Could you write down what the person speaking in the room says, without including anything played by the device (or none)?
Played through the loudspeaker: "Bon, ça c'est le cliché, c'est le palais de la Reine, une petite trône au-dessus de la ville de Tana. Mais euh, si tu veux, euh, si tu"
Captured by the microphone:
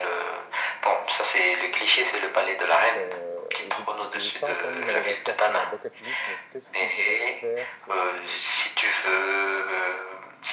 Euh, et j'ai j'ai- j'ai pas encore mis Madagascar sur ma bucket list, mais qu'est-ce qui pourrait faire que,